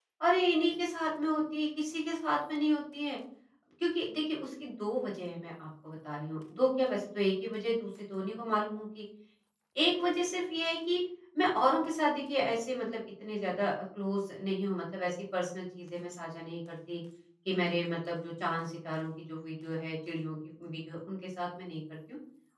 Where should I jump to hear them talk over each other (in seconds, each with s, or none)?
none